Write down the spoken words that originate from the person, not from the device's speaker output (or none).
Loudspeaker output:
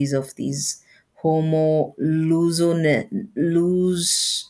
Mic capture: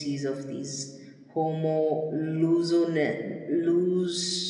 none